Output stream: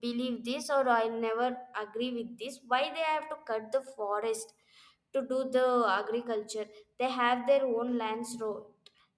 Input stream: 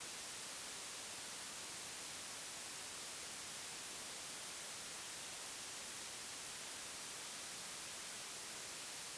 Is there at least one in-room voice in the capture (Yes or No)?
No